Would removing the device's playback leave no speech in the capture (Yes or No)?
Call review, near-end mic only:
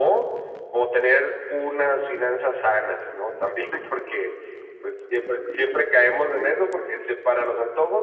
Yes